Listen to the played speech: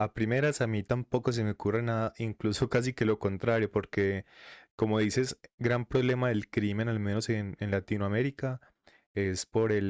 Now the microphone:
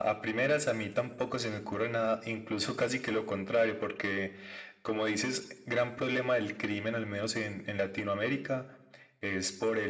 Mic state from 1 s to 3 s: echo only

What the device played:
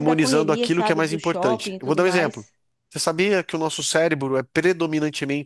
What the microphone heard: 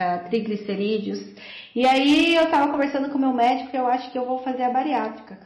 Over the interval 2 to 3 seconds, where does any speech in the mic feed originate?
user only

